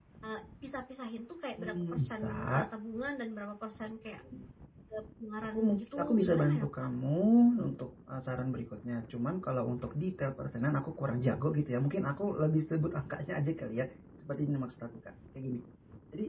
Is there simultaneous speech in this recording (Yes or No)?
Yes